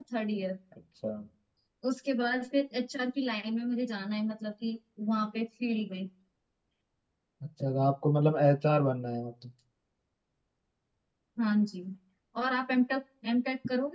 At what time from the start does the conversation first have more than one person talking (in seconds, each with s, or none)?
none